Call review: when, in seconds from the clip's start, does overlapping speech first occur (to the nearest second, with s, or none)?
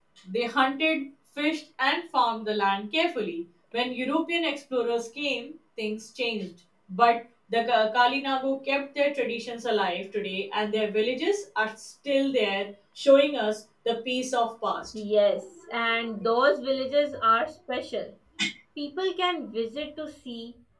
none